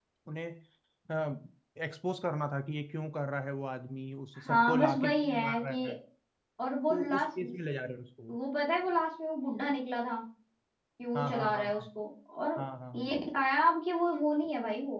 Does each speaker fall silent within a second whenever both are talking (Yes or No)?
No